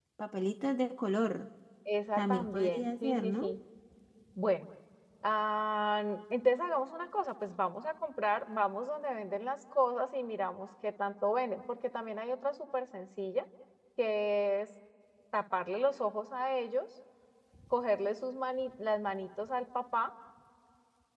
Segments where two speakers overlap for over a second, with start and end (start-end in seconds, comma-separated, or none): 2.2-3.5